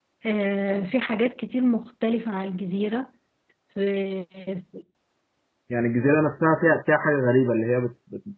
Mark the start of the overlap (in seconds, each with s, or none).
none